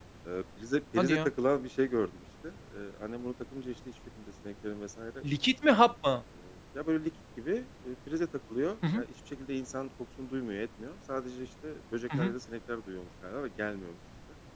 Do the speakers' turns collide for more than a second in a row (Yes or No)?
No